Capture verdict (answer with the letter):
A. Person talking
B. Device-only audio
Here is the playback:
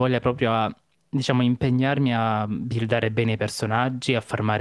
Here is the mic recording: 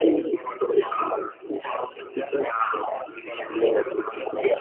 B